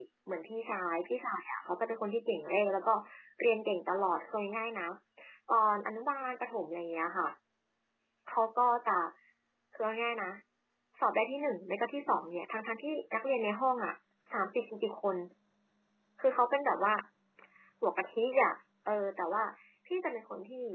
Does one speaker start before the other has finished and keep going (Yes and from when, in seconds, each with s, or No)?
No